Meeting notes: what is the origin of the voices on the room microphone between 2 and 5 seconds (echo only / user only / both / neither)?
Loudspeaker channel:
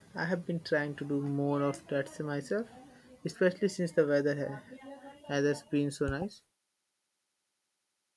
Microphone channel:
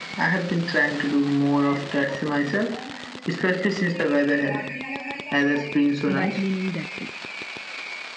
echo only